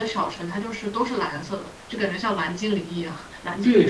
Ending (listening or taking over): taking over